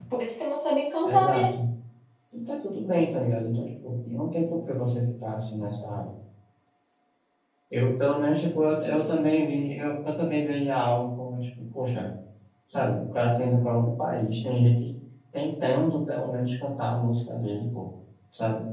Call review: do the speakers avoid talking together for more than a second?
Yes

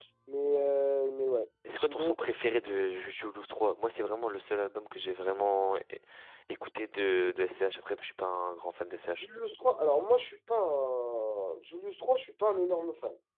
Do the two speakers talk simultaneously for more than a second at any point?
No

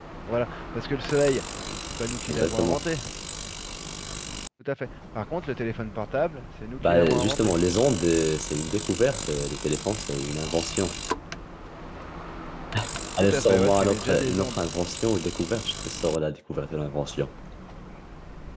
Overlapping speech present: Yes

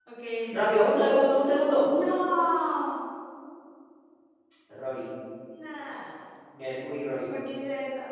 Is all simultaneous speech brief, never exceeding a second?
Yes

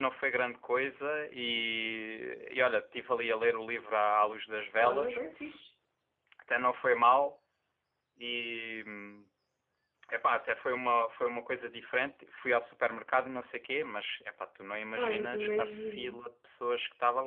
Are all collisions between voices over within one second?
No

